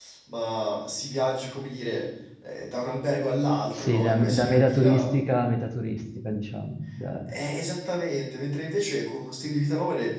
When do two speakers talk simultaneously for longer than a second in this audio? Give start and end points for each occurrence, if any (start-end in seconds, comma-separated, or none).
3.7-5.2